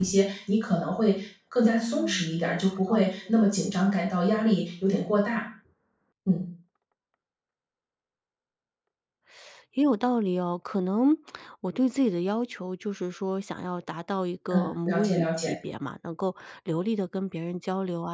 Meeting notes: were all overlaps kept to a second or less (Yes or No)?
No